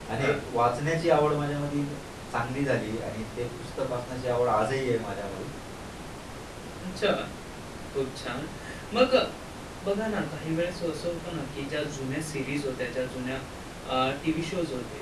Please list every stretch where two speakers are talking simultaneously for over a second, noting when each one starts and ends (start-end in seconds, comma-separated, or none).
none